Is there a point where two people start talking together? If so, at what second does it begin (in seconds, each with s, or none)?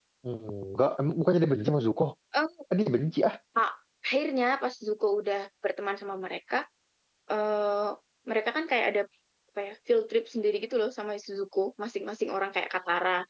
none